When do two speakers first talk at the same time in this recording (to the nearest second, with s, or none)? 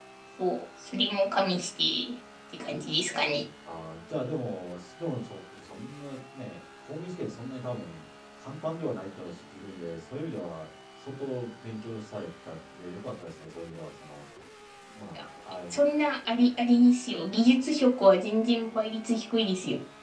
none